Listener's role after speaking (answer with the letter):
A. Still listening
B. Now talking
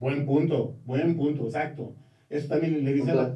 A